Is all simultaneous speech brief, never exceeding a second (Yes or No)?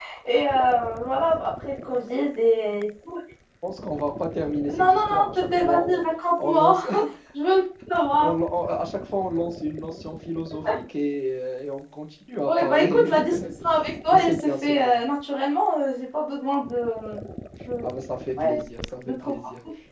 No